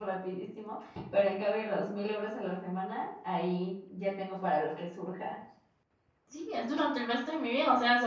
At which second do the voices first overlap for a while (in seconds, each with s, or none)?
none